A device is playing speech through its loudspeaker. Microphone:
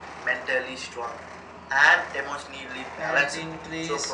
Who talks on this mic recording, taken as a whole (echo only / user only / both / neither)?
both